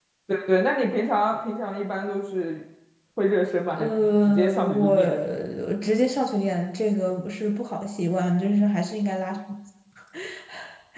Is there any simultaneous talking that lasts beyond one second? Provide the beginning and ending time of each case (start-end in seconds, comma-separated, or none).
3.7-5.0